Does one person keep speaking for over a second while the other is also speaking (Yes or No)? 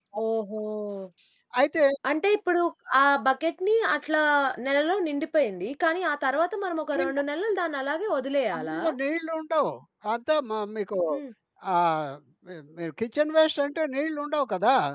No